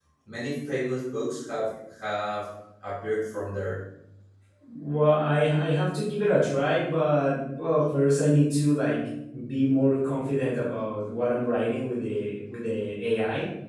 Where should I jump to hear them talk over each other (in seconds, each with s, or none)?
none